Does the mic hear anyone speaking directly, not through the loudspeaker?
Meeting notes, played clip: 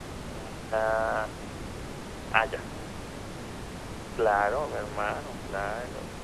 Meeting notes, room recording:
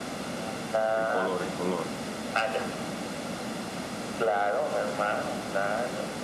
Yes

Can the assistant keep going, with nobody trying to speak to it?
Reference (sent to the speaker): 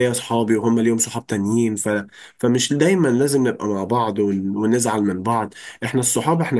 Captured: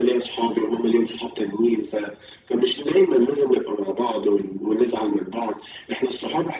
Yes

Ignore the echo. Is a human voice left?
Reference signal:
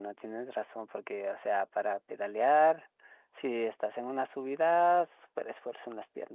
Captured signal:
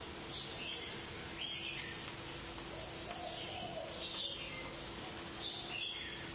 No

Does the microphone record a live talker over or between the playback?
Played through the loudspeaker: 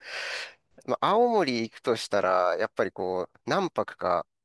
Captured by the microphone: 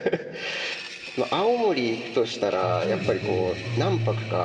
Yes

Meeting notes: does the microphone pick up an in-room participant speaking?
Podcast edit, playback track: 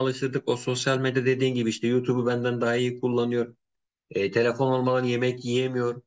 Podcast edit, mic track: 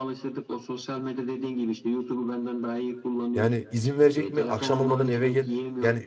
Yes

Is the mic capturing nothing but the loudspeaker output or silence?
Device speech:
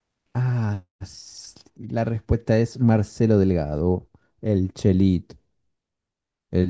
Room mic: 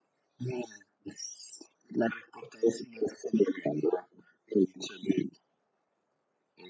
Yes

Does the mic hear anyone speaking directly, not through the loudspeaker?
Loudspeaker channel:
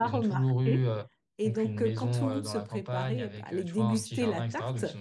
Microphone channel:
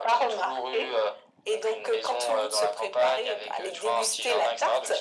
No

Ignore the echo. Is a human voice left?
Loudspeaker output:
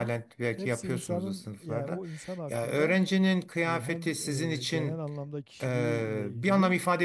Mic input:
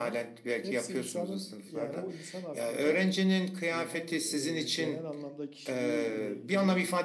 No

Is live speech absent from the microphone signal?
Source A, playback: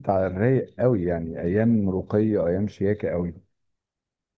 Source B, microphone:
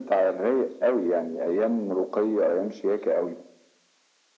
Yes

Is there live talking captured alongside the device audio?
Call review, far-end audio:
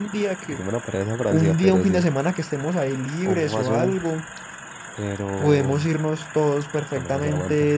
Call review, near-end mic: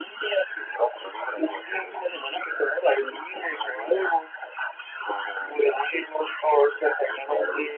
No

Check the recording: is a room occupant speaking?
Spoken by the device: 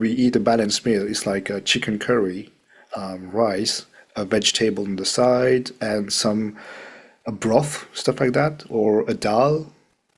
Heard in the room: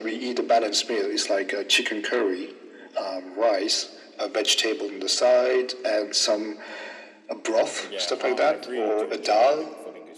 Yes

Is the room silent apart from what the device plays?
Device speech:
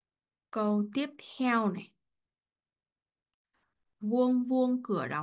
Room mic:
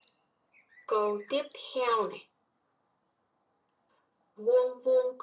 Yes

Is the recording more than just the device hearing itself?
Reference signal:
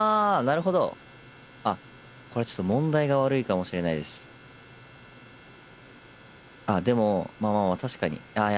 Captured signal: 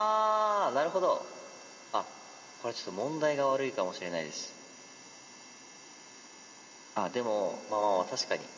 No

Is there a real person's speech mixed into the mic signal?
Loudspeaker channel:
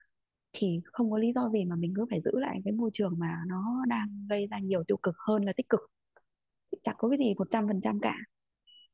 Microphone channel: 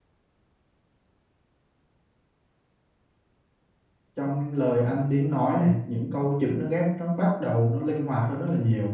Yes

